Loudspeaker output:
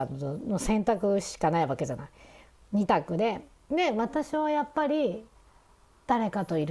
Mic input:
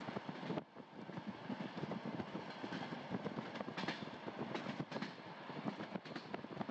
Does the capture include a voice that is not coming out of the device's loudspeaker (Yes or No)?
No